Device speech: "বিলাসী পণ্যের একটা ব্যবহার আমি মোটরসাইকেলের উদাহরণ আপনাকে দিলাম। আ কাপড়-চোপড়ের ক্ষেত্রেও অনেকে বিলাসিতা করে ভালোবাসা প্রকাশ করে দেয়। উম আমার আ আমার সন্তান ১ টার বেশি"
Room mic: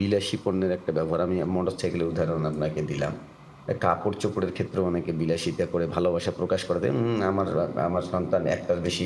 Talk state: echo only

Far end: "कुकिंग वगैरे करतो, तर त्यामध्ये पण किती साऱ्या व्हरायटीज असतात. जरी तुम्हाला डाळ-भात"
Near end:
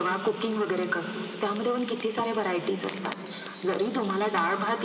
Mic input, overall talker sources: echo only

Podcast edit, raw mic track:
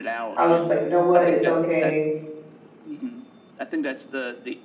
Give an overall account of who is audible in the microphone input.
both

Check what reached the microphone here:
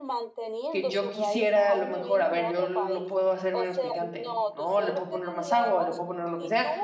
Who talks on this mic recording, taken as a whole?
both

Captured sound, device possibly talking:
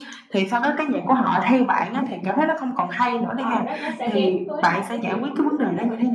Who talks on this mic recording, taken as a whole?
both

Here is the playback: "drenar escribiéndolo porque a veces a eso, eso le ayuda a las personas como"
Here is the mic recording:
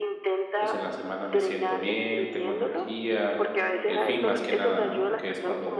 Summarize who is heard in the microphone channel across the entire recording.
both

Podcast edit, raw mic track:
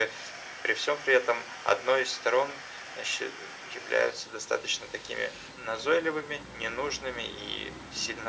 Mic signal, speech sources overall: echo only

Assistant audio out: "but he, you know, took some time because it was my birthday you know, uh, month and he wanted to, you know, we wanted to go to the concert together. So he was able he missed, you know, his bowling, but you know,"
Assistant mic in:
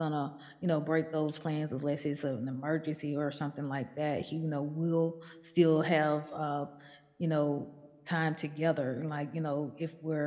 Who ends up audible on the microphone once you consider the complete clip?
user only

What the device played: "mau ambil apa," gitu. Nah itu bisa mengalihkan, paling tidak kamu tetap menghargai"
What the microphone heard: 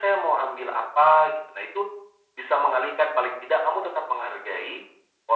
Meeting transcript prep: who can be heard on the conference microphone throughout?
echo only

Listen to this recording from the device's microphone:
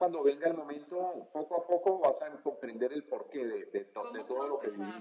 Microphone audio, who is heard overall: both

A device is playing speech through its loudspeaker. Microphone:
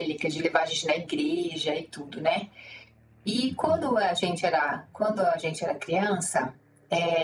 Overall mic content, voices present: both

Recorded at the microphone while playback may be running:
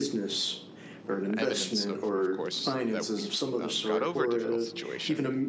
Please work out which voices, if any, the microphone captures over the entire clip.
both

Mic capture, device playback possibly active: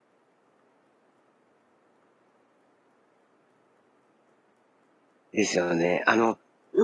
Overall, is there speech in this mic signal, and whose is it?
user only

